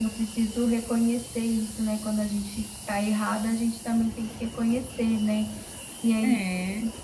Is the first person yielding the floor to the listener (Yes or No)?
No